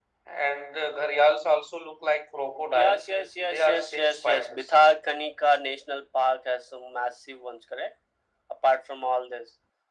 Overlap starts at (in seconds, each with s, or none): 2.7 s